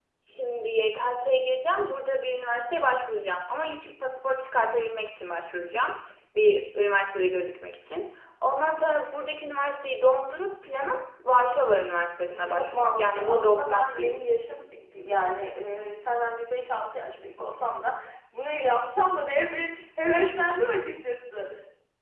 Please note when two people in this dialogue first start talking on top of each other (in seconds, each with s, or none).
12.3 s